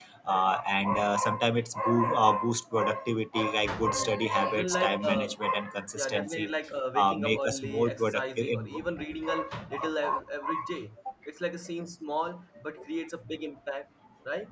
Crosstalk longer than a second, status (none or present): present